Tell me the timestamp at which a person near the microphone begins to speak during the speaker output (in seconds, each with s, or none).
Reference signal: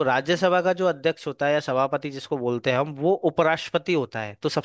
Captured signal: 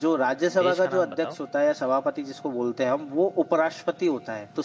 0.6 s